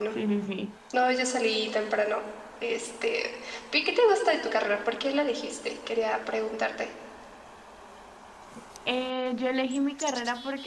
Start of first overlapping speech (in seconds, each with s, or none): none